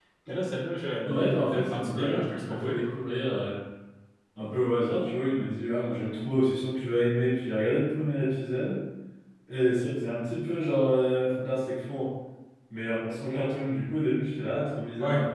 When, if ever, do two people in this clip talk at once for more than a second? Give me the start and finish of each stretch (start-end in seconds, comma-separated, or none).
1.0-2.8